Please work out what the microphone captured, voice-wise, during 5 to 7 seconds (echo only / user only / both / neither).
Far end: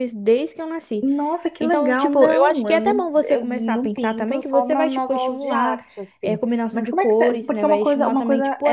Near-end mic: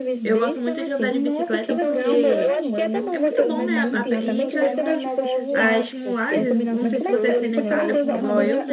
both